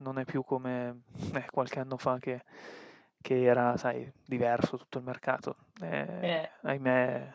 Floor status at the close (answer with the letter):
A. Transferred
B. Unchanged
B